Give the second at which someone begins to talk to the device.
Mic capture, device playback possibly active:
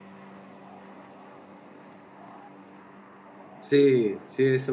4 s

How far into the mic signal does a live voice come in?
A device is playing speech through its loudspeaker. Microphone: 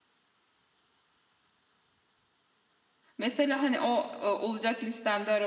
3 s

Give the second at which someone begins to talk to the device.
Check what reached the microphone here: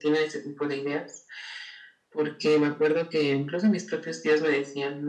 none

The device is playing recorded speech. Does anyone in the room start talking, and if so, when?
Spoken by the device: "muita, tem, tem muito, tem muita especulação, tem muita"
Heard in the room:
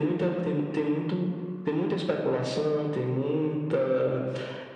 none

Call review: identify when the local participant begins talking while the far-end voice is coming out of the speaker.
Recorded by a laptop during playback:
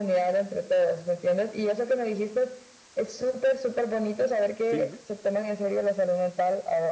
5 s

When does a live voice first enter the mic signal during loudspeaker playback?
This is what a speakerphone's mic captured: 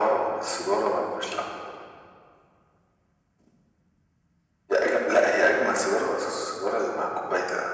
none

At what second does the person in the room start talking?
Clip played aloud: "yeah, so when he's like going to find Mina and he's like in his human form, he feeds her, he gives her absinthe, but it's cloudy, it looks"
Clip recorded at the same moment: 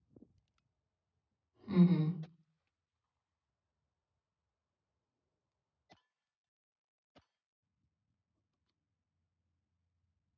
2 s

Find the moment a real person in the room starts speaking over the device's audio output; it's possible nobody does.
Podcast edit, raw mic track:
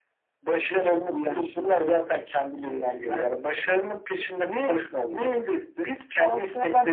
none

